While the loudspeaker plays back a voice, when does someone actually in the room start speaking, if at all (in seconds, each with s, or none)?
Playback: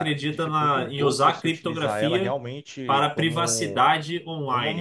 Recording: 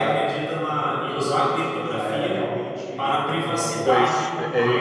3.7 s